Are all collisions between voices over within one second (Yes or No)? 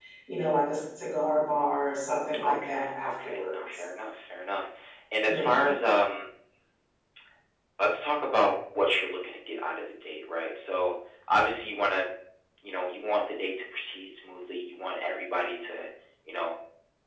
No